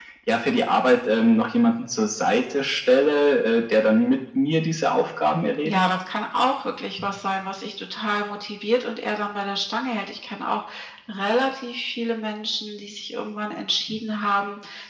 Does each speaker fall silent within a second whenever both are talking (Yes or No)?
Yes